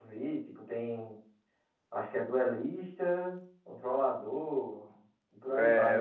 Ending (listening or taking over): taking over